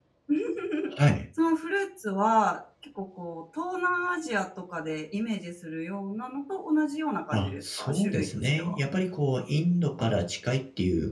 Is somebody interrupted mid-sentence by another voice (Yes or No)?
Yes